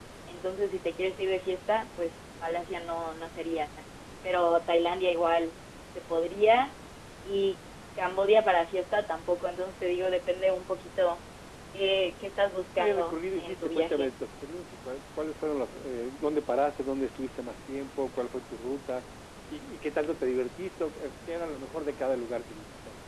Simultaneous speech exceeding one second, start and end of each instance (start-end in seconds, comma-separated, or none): 12.8-14.1